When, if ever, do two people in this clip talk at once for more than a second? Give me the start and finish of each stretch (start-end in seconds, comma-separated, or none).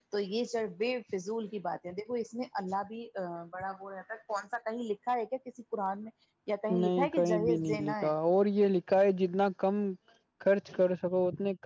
6.7-8.1